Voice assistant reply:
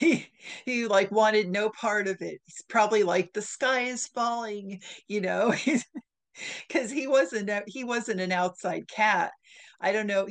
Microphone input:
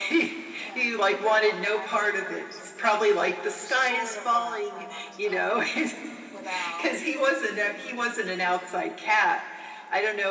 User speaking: Yes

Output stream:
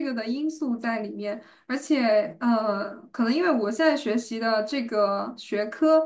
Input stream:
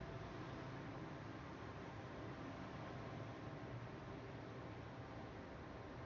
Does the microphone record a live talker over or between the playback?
No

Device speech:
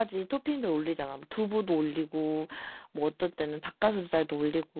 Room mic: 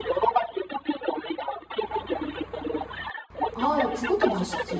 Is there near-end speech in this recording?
Yes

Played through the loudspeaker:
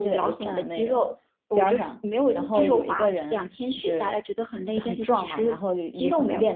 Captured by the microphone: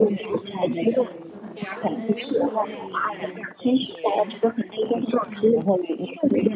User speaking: Yes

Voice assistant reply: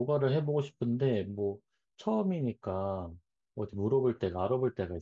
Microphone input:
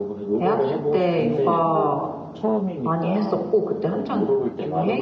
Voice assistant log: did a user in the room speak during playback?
Yes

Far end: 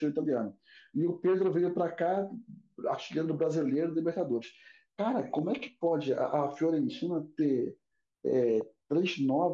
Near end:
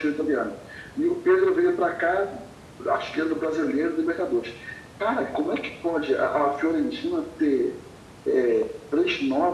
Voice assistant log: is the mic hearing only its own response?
Yes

